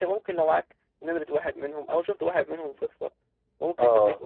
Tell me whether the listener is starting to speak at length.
No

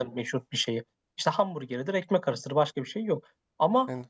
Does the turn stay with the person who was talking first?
Yes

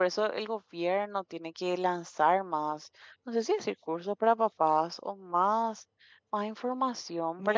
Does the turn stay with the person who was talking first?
No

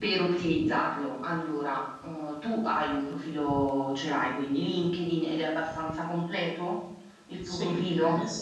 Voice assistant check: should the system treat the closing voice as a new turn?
Yes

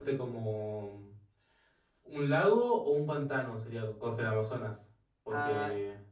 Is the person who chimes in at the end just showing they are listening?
No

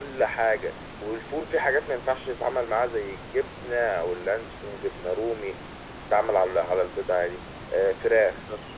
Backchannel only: Yes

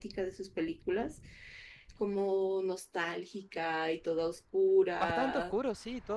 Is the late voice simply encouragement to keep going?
No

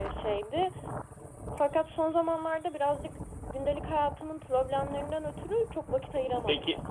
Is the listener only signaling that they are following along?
No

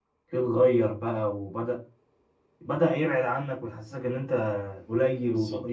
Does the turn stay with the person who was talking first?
No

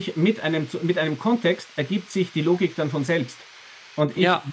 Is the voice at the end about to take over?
No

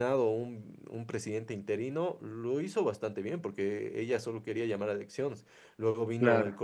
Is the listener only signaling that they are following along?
Yes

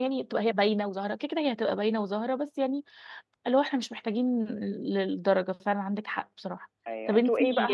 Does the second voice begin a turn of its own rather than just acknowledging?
Yes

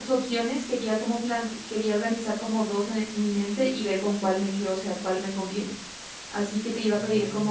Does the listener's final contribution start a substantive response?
No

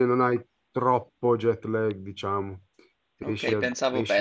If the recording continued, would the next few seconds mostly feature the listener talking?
Yes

